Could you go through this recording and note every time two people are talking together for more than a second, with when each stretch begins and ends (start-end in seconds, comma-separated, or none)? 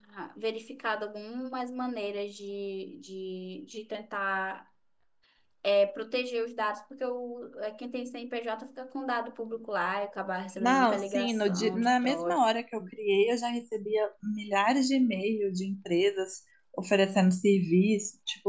10.6-12.4